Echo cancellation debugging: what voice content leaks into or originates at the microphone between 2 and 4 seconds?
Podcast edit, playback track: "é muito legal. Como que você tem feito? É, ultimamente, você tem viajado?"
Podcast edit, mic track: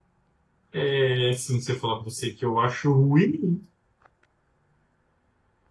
user only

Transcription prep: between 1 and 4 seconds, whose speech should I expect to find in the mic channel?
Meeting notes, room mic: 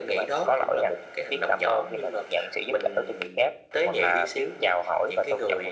echo only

